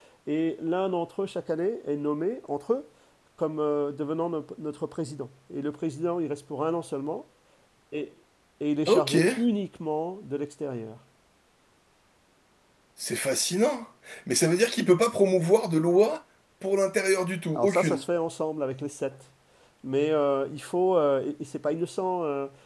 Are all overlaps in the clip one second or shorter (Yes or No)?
Yes